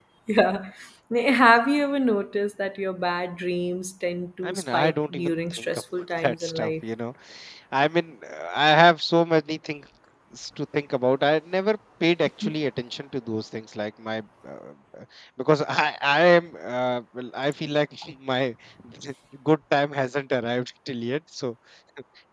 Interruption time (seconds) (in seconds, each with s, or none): 4.4 s